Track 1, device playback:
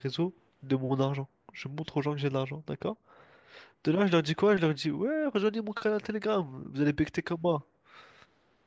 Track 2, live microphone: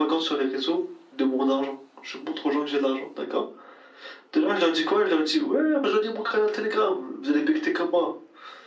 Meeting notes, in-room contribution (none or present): none